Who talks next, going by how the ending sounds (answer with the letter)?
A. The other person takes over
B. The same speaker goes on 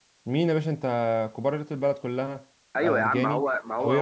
A